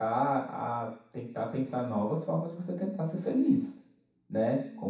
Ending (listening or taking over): listening